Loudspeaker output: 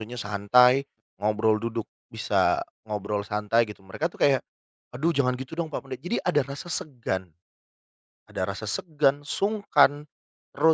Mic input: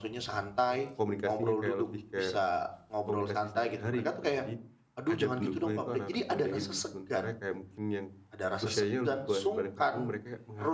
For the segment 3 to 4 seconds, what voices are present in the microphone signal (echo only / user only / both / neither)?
both